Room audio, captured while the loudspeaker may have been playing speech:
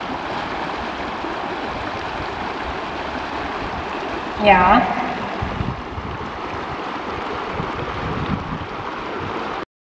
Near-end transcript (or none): Ja,